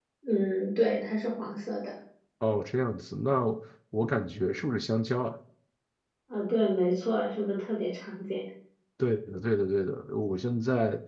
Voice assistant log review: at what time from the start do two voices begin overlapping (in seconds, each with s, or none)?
none